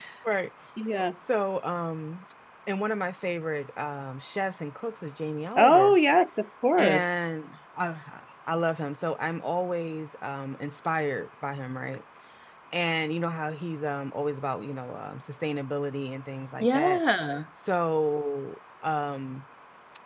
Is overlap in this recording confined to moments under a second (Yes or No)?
Yes